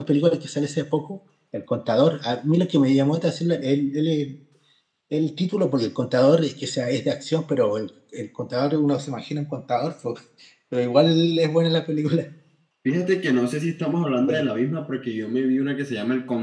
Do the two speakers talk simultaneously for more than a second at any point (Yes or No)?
No